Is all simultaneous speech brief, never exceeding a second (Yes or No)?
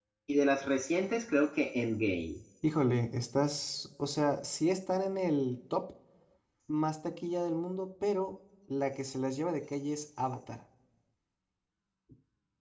Yes